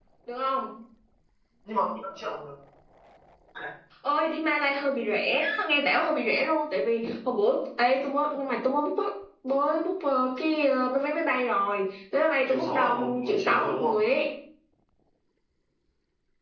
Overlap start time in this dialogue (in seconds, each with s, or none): 12.5 s